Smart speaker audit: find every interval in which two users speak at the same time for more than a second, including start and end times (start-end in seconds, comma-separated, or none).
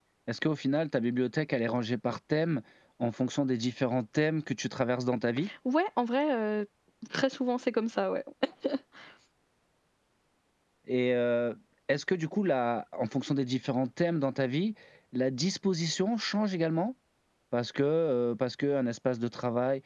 none